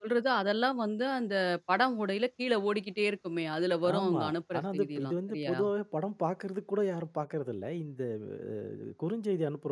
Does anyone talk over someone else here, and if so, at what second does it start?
3.8 s

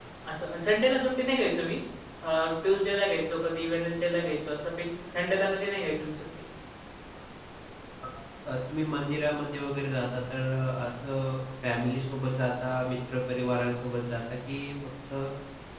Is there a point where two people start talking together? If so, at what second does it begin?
none

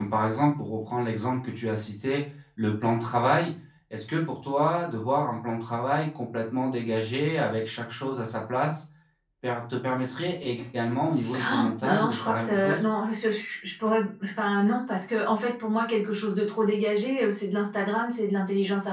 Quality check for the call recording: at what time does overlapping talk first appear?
11.2 s

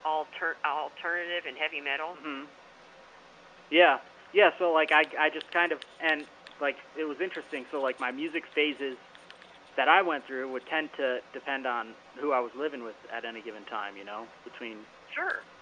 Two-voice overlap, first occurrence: none

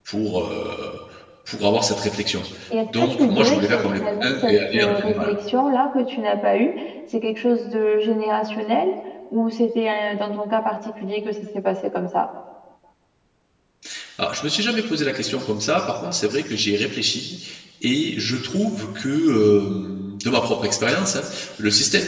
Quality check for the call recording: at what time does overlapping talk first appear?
3.0 s

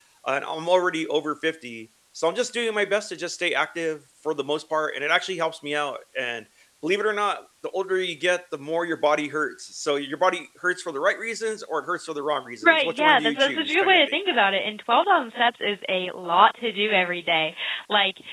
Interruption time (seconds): 12.6 s

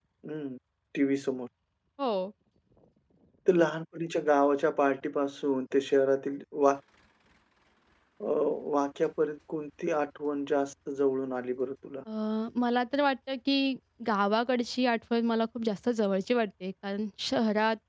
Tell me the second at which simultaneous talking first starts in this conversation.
none

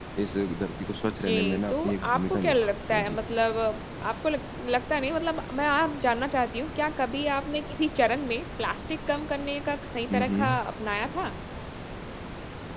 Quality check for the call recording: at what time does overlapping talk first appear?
1.0 s

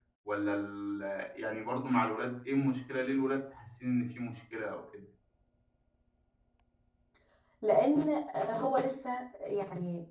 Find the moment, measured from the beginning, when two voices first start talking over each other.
none

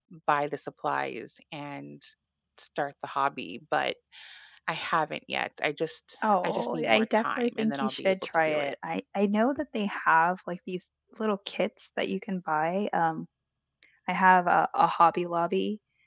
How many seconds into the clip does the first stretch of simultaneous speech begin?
6.2 s

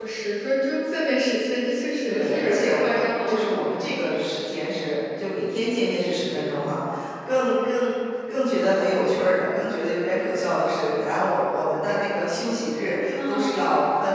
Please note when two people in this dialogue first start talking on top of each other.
2.0 s

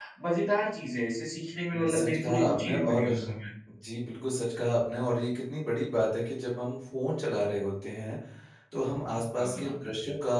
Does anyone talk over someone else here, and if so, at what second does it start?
1.8 s

